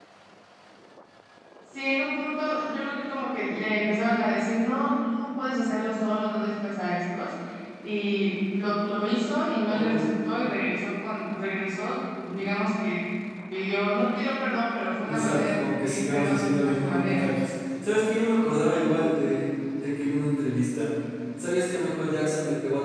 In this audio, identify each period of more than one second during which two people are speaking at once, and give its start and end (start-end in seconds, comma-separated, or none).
15.1-17.2